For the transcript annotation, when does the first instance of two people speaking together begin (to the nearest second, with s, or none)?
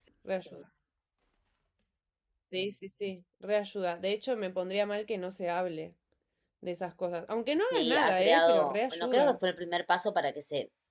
8 s